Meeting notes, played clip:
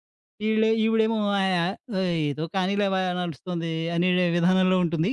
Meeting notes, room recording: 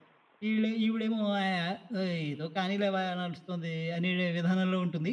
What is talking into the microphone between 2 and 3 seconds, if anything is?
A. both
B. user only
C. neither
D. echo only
D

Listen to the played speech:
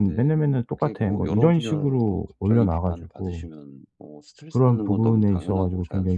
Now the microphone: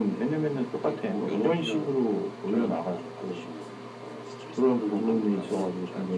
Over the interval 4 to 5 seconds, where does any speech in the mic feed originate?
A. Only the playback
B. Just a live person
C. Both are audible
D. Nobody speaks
A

